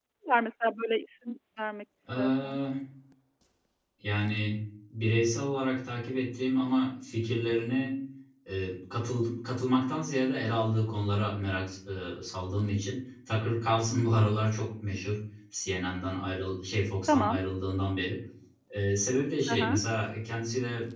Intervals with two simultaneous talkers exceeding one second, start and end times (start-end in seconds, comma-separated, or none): none